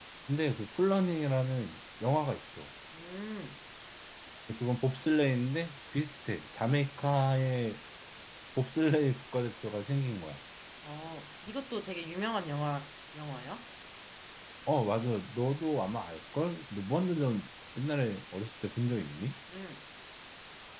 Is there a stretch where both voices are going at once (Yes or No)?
No